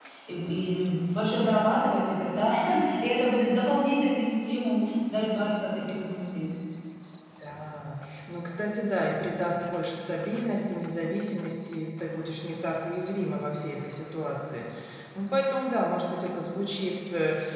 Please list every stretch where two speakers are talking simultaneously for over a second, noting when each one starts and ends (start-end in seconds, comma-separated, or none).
none